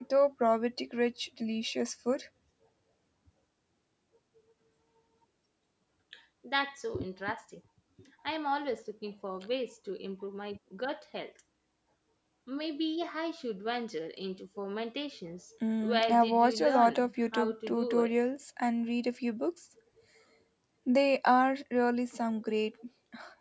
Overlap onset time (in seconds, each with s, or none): 15.6 s